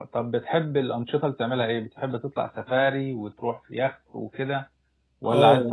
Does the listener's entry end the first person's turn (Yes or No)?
Yes